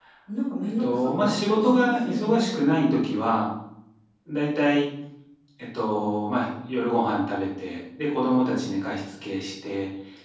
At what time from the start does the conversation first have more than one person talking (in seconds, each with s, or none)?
0.8 s